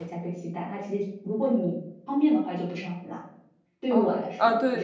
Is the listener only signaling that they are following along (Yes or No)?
No